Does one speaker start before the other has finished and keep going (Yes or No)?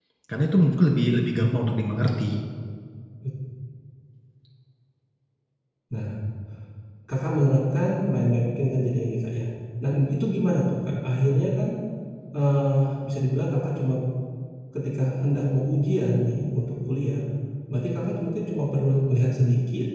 No